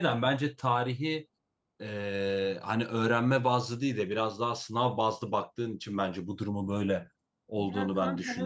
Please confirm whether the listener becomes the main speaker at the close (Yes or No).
Yes